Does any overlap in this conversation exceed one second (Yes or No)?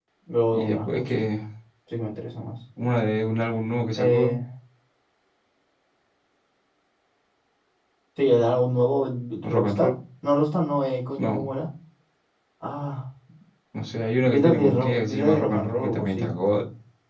Yes